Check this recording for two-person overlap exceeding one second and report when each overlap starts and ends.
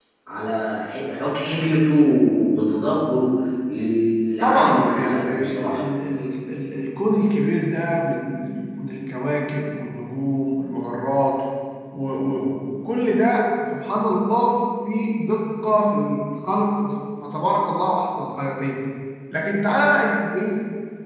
4.4-5.8

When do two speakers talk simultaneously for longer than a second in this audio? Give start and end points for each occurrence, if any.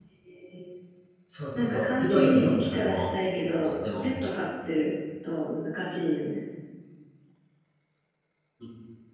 1.6-3.0

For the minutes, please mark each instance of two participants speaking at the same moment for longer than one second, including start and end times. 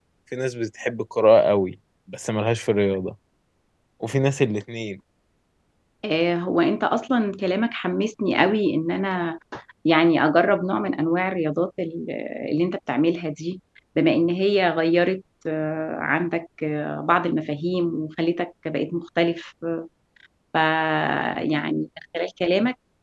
none

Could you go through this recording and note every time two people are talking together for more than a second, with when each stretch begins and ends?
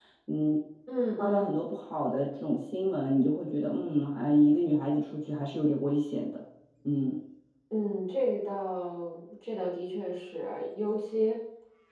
none

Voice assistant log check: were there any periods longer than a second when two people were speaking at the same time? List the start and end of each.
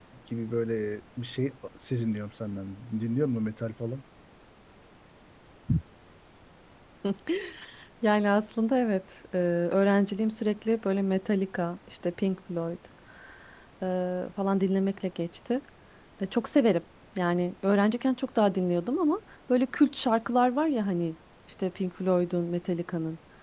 none

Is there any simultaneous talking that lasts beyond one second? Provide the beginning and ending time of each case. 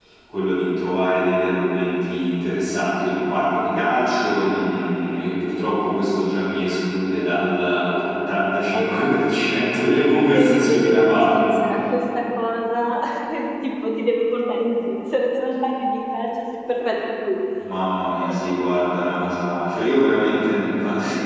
10.3-11.6

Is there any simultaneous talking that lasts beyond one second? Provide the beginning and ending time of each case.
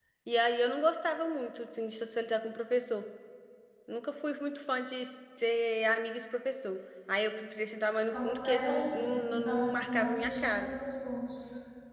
8.1-10.7

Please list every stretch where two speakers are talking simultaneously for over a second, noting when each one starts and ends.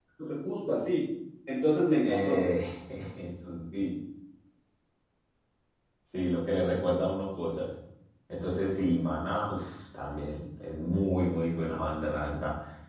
none

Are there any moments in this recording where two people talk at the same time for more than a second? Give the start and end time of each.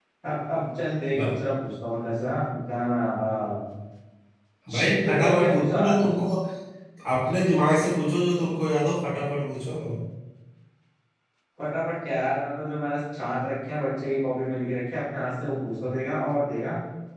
4.7-6.0

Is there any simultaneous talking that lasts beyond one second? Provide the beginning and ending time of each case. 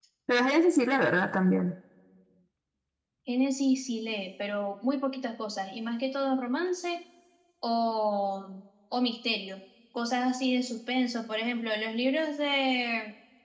none

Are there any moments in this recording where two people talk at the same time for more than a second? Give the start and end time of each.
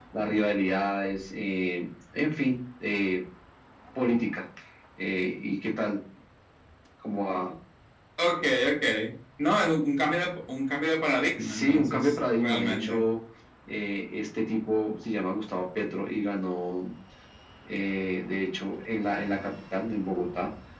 11.4-13.0

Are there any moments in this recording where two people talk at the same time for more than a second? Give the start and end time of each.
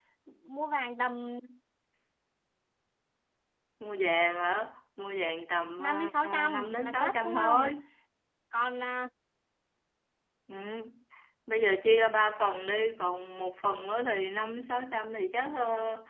5.8-7.7

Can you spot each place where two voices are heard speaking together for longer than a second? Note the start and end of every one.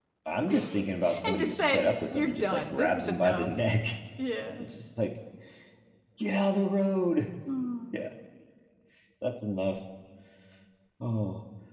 1.2-3.5

